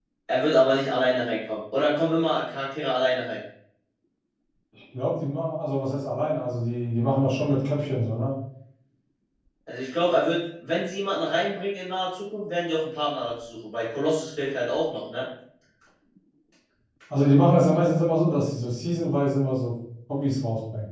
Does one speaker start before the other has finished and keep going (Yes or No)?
No